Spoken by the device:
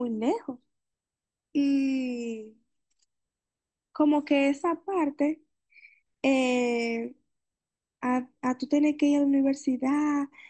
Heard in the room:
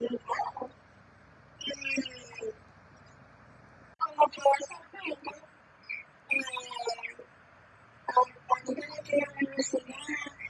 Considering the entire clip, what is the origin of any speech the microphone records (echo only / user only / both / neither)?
echo only